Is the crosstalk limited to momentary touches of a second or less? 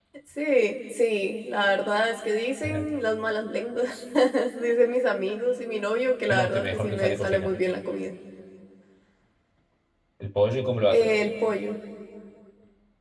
No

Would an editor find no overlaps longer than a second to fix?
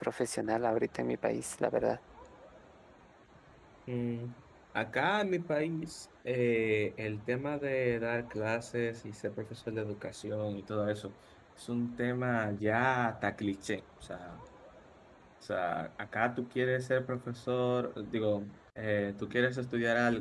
Yes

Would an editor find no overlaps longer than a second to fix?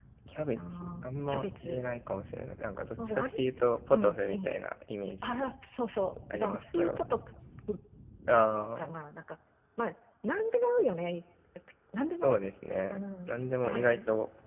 No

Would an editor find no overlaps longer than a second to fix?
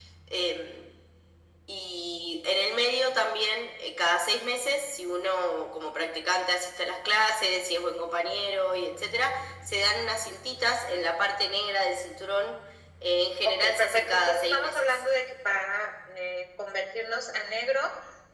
No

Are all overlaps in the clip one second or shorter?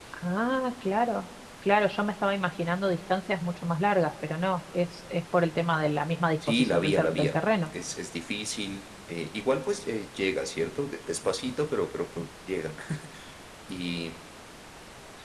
No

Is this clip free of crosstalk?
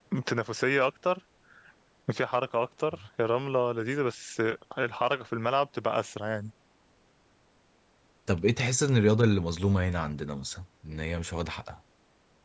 Yes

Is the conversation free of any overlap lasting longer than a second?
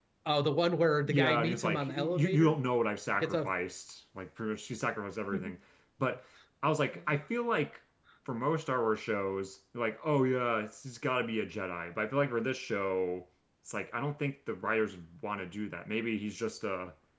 No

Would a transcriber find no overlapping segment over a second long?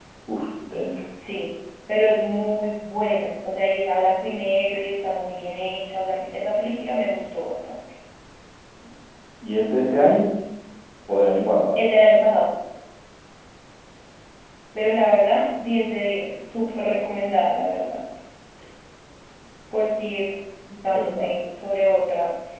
Yes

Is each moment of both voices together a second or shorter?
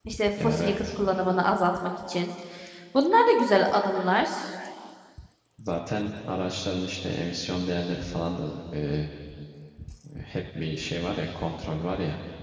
Yes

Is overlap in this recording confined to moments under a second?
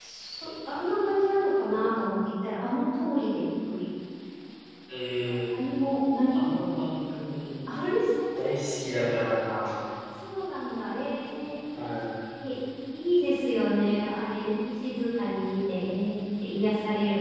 Yes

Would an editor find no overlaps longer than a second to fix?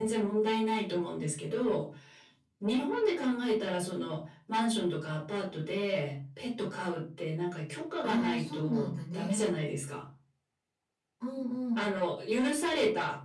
No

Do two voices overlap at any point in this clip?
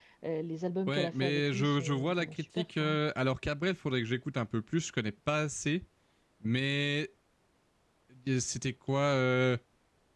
Yes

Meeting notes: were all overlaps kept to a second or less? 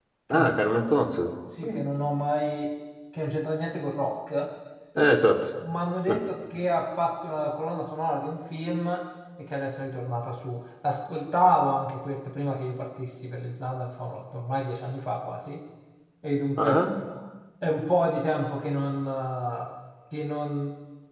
Yes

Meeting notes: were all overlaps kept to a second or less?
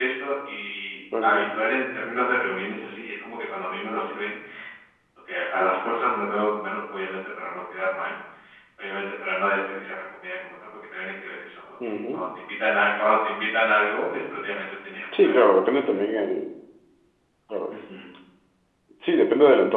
Yes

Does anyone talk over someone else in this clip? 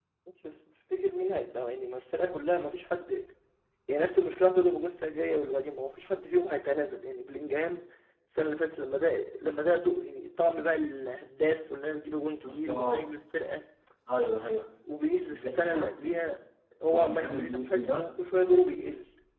Yes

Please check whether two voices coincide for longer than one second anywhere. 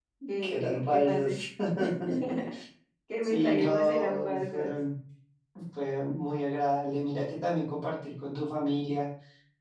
Yes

